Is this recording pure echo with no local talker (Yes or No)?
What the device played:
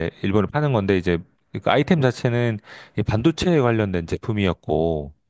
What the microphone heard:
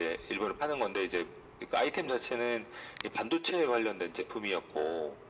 Yes